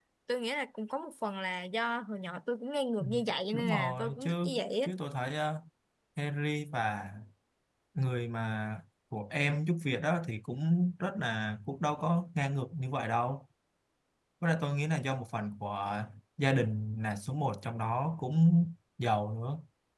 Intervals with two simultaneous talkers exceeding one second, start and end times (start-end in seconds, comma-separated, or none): 3.5-4.9